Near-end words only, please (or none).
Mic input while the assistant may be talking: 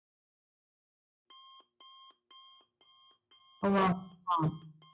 वाह! हां.